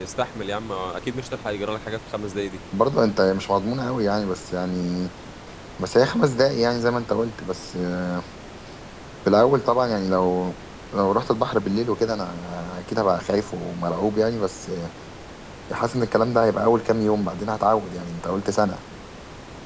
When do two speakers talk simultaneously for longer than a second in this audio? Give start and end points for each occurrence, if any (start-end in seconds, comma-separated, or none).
none